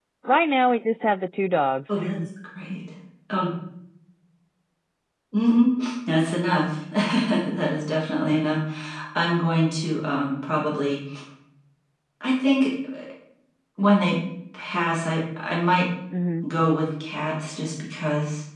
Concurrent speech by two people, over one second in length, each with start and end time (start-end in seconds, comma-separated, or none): none